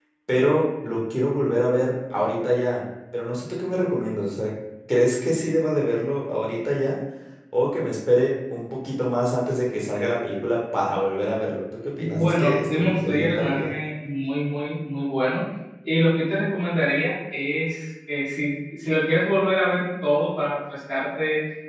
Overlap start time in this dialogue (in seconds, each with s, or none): 12.0 s